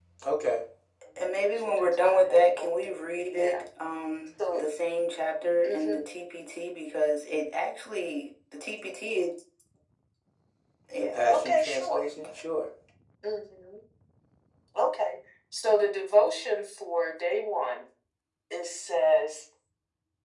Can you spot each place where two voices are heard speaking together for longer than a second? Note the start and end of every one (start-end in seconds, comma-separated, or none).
1.2-3.6, 11.0-12.4